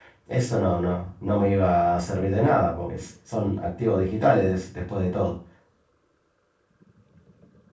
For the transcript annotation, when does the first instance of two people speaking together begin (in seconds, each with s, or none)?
none